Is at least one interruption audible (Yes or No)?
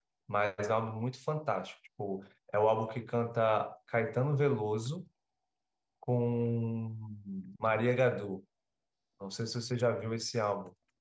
No